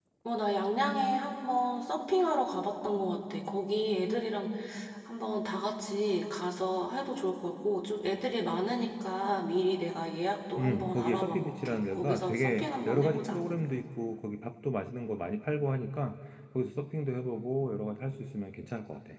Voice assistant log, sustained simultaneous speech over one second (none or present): present